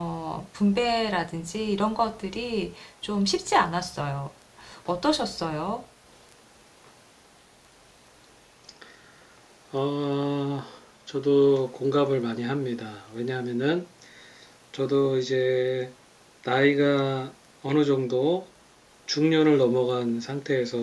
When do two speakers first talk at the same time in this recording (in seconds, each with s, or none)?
none